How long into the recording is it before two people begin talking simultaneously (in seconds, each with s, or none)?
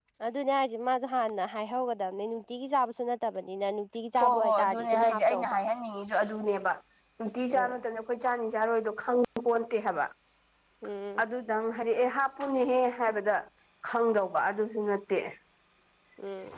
4.2 s